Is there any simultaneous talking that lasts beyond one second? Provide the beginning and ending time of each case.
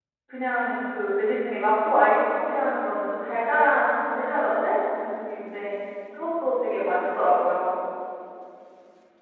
none

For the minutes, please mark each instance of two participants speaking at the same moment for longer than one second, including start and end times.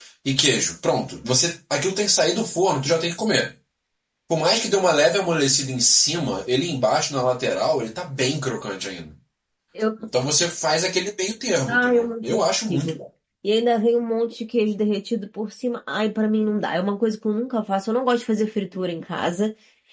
11.7-13.0

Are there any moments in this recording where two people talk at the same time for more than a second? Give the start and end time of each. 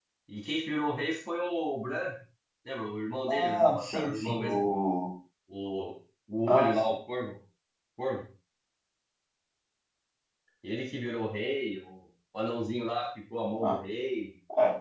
3.3-4.7

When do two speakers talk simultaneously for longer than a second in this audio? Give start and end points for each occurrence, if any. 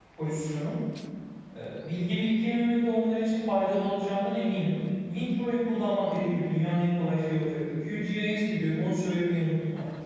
none

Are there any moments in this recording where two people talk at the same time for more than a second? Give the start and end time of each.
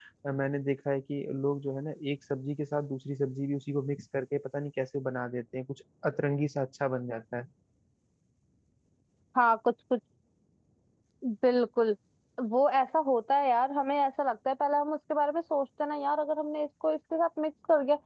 none

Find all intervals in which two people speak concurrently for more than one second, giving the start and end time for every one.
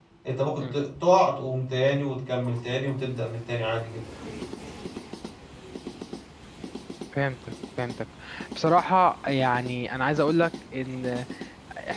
none

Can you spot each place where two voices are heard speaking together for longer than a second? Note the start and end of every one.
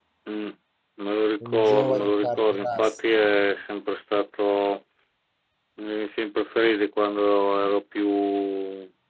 1.5-3.0

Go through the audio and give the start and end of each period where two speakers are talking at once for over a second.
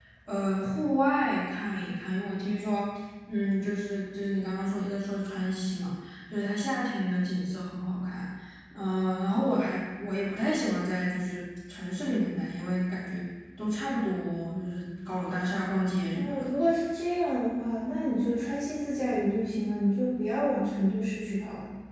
none

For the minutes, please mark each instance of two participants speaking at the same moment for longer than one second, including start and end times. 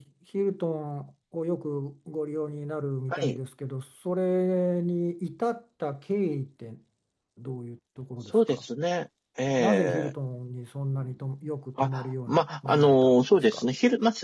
11.8-13.6

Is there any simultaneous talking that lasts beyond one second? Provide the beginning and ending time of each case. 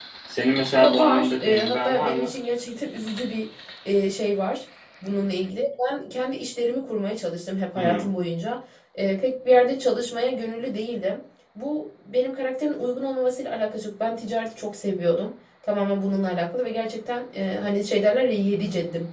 0.8-2.3

